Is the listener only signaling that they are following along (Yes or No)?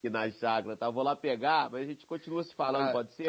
No